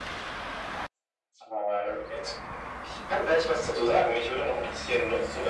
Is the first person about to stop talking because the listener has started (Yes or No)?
No